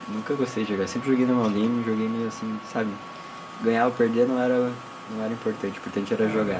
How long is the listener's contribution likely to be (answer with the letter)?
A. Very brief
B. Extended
B